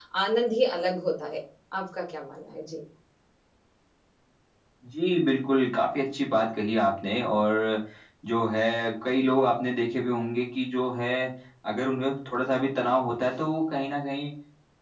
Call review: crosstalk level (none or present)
none